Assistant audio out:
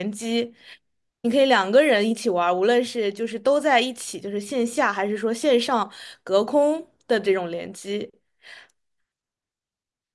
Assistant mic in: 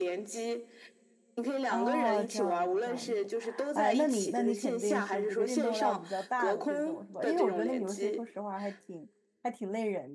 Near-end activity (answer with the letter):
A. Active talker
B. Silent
A